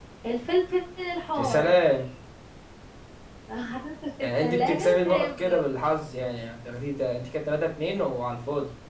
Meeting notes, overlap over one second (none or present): present